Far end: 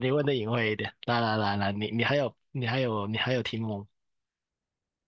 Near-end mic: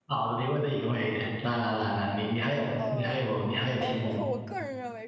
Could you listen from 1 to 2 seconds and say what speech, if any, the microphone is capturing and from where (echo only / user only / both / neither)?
echo only